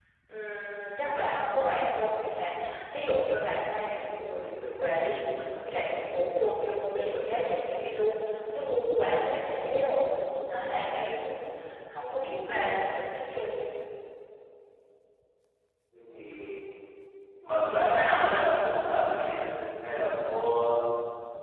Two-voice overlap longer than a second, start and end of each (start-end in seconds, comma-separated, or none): none